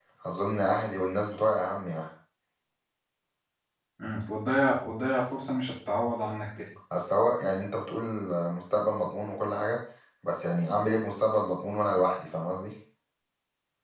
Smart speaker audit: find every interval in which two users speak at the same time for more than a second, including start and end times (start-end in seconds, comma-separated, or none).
none